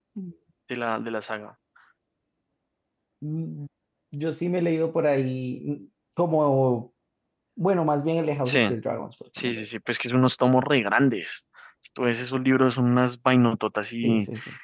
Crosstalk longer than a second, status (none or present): none